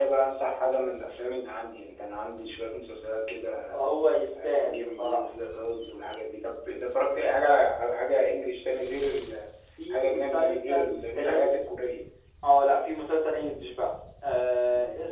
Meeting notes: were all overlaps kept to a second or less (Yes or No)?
No